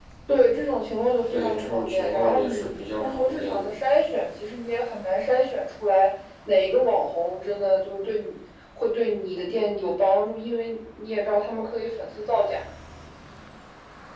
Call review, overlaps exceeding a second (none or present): present